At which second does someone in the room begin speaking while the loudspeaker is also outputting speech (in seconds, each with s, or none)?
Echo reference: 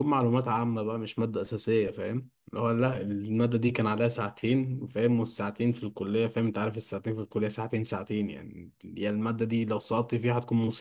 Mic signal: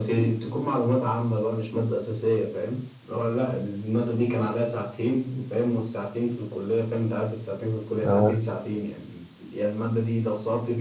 8.0 s